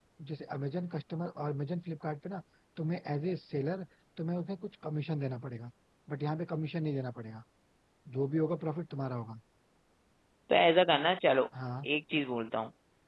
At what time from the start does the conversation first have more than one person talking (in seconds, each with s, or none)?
none